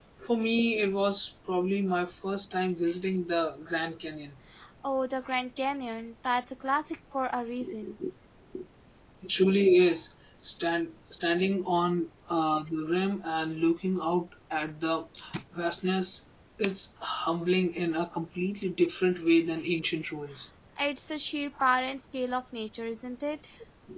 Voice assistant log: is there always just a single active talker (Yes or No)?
Yes